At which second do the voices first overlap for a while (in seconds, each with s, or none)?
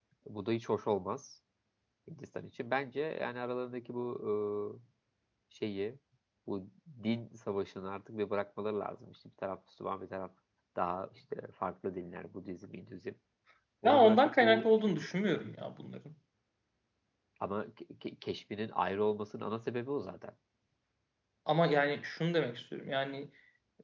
13.8 s